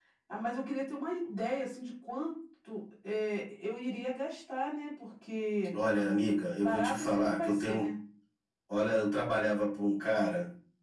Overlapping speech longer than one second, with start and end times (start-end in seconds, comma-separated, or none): 6.6-7.9